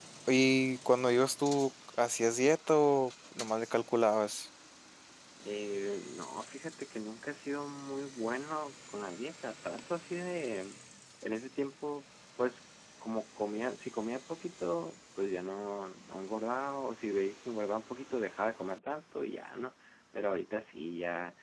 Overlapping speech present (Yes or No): No